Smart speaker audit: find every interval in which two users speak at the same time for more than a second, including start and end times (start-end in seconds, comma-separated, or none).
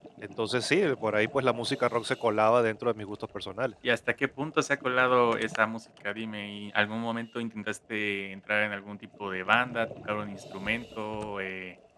none